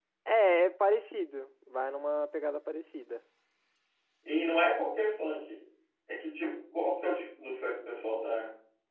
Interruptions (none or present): none